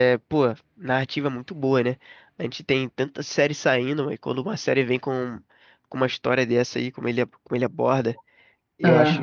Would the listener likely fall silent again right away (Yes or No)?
Yes